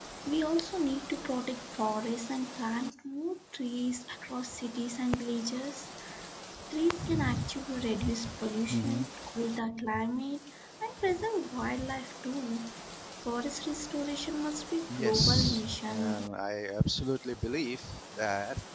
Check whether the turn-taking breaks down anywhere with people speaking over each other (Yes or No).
Yes